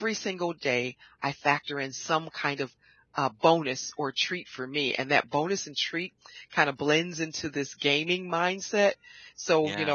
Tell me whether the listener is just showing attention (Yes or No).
Yes